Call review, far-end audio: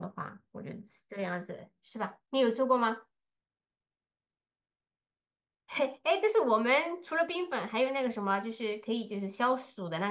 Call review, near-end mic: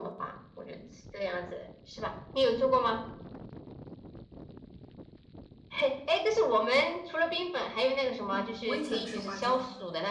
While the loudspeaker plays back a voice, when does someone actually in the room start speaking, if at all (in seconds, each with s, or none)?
8.3 s